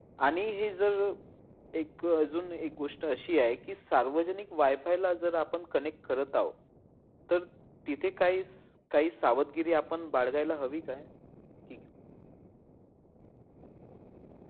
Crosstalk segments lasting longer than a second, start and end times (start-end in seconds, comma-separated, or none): none